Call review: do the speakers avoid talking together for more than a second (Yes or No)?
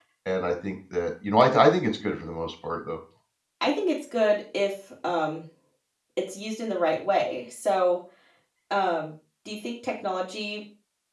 Yes